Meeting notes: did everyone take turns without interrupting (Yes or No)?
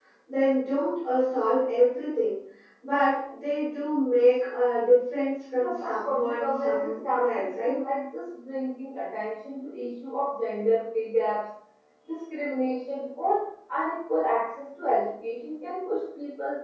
No